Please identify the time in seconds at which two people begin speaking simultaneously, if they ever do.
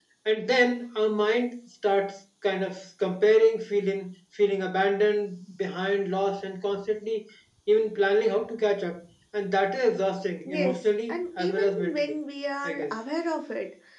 10.4 s

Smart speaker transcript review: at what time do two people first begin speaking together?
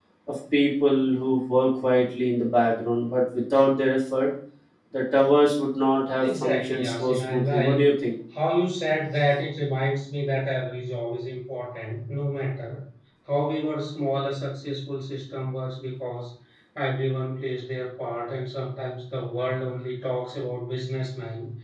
6.2 s

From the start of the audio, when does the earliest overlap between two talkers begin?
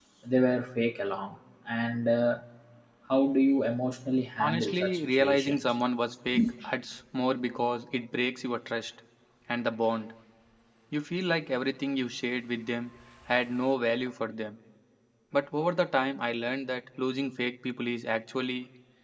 4.4 s

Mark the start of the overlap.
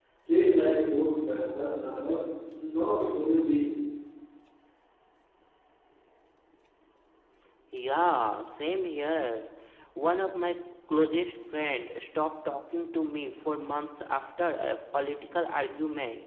none

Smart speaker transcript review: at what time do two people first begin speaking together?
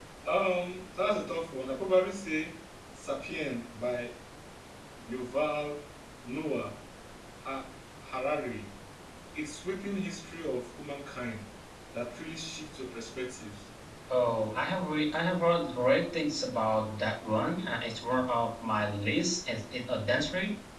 none

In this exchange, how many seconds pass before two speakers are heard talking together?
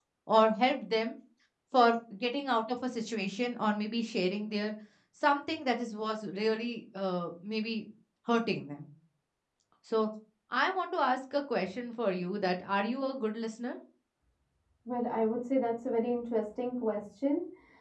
none

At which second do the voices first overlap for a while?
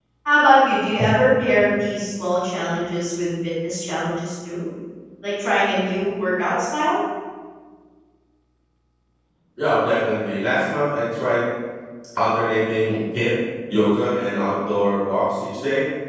none

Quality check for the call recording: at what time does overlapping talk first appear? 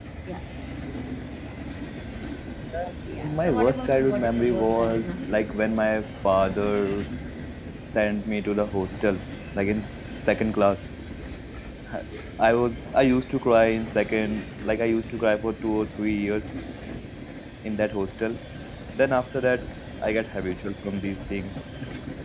3.2 s

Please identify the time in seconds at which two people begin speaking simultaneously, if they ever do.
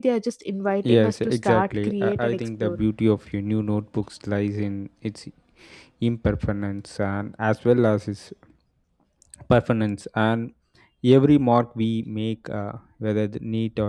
0.8 s

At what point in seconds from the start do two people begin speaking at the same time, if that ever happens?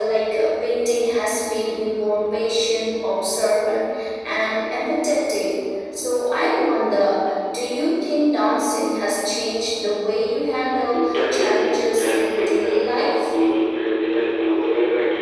10.9 s

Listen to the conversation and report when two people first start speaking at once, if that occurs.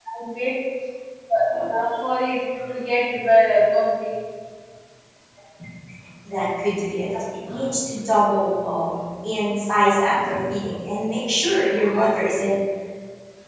none

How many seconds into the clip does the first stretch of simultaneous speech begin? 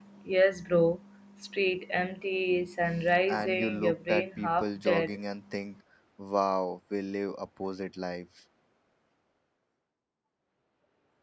3.3 s

